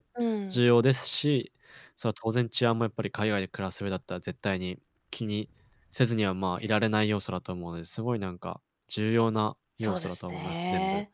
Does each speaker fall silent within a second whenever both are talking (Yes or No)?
No